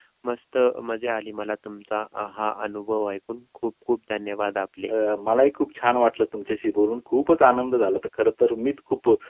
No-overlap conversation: Yes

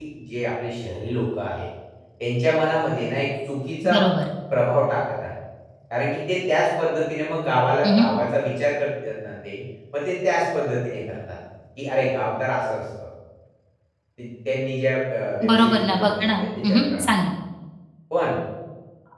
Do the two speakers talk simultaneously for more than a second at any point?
Yes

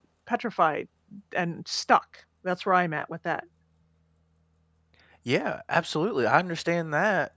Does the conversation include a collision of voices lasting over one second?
No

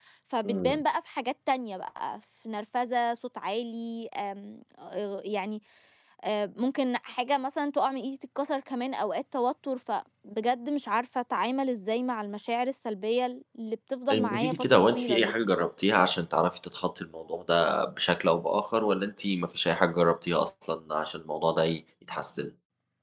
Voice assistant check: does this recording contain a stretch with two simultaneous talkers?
Yes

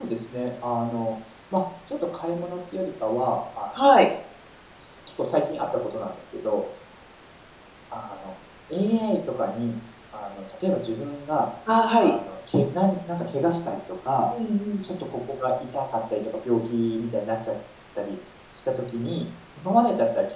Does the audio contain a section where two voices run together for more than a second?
No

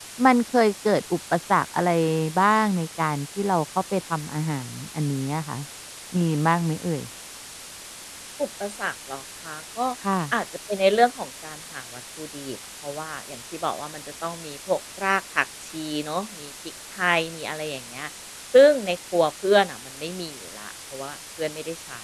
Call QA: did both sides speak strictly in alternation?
Yes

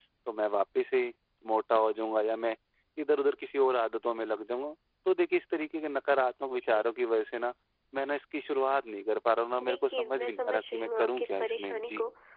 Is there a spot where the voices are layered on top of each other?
Yes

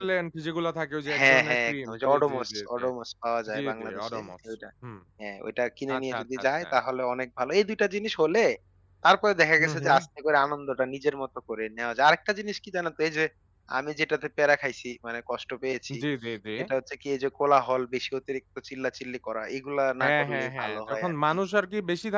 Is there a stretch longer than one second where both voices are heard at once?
Yes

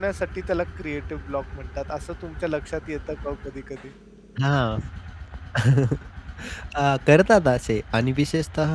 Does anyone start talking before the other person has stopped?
No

